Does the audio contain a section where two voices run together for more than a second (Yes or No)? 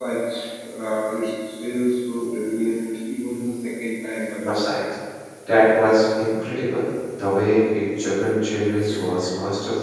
No